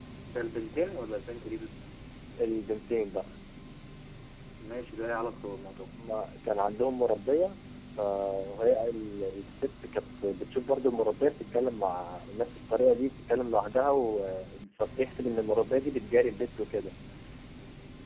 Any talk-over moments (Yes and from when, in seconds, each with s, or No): No